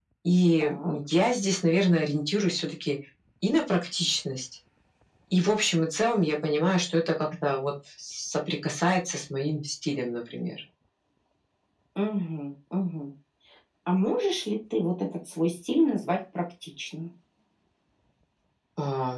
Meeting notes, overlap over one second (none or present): none